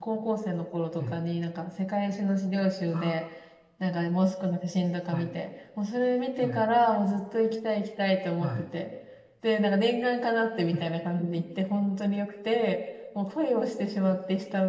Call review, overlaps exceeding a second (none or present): none